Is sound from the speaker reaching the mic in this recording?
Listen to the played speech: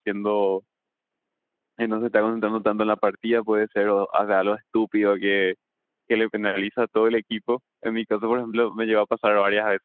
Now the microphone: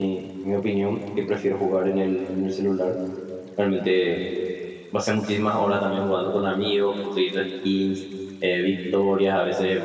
No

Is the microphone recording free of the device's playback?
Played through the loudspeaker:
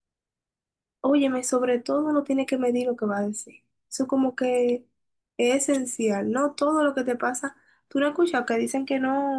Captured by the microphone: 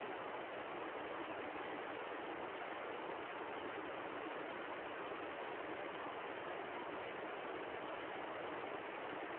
Yes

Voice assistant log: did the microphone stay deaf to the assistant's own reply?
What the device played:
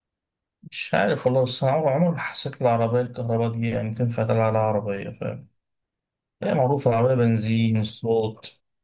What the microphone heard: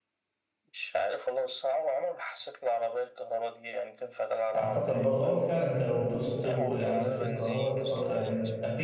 No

